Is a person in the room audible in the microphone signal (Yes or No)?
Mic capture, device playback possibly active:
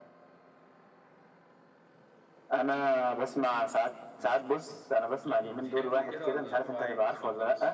Yes